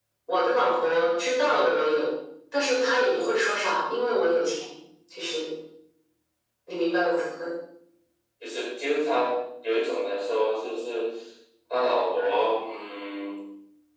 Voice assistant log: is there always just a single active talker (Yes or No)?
Yes